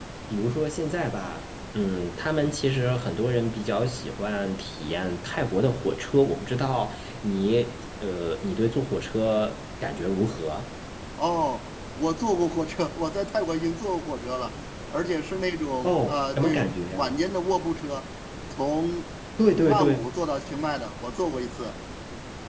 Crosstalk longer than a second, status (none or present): present